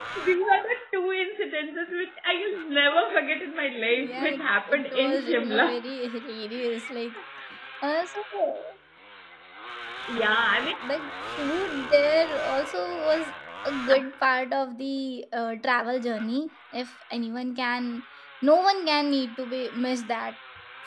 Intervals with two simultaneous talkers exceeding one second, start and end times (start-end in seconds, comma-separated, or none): 3.9-5.8